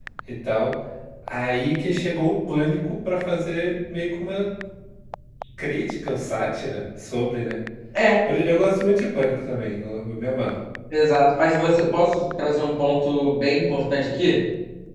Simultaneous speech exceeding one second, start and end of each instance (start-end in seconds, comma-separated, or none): none